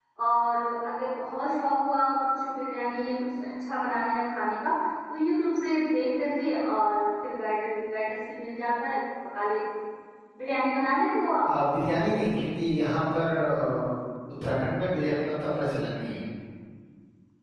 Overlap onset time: none

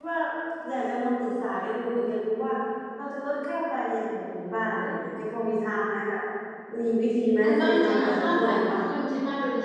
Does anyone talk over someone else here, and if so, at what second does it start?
7.4 s

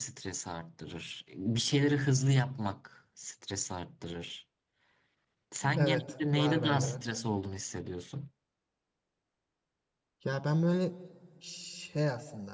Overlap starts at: 5.8 s

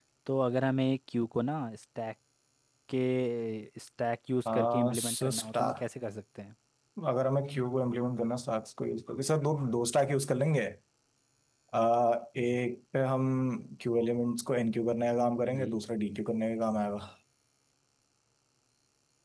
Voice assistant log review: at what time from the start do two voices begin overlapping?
4.5 s

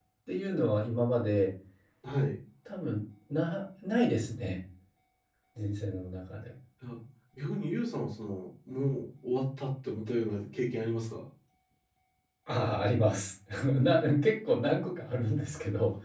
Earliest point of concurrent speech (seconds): none

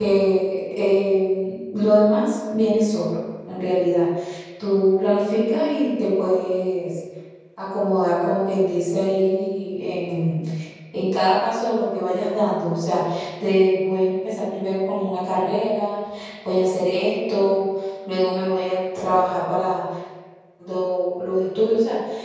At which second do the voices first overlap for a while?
none

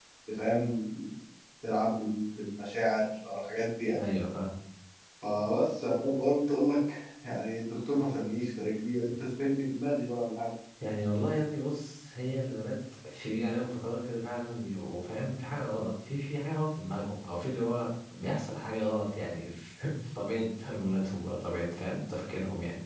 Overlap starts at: none

